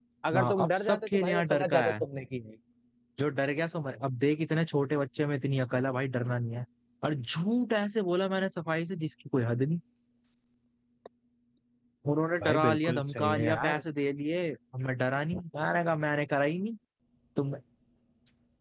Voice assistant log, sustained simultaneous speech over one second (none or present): present